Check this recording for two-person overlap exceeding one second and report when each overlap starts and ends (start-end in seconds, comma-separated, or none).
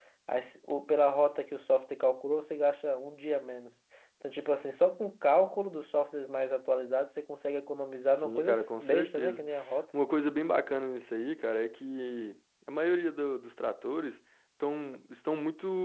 8.1-9.4